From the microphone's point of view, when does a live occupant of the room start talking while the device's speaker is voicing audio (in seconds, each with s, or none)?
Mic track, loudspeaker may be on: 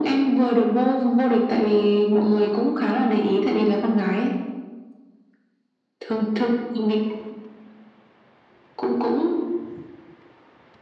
none